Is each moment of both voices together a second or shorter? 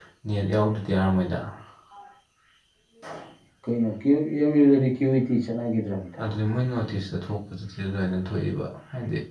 Yes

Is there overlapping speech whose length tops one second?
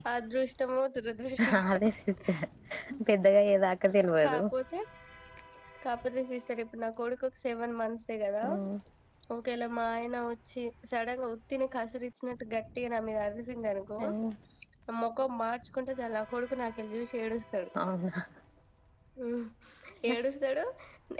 No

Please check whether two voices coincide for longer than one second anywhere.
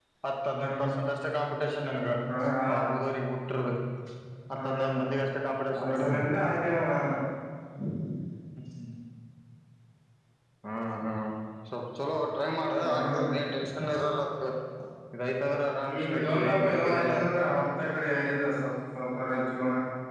Yes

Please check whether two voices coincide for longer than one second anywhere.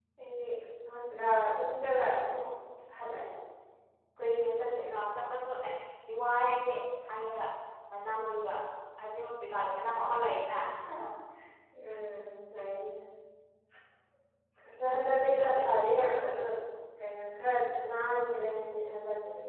Yes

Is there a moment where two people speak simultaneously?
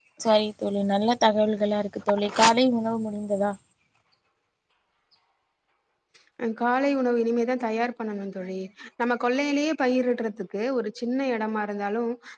No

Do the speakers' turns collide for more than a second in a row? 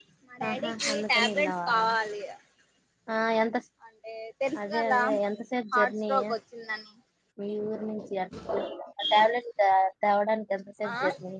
Yes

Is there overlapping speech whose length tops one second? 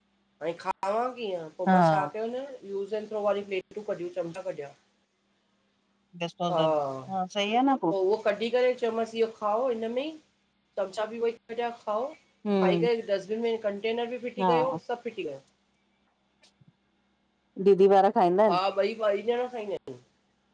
No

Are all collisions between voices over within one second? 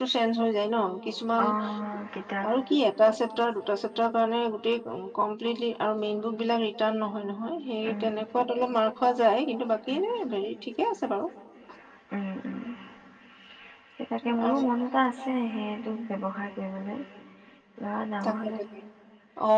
Yes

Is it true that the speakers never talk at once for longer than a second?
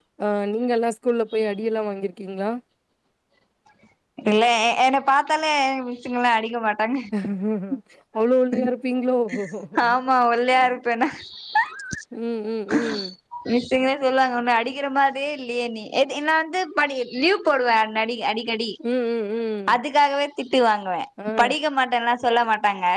Yes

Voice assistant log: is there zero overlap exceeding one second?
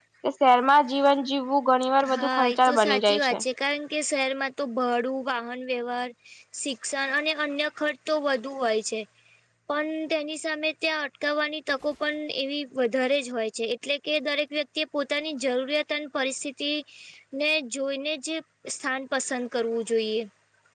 No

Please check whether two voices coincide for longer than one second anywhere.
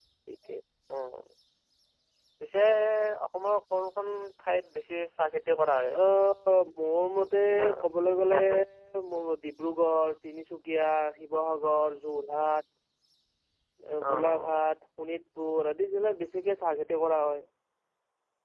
No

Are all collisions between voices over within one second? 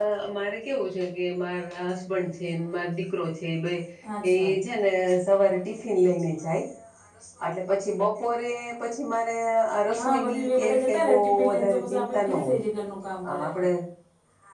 No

